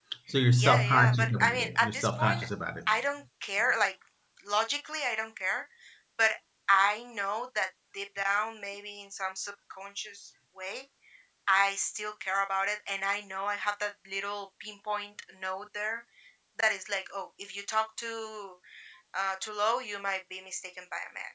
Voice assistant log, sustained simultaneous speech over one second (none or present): present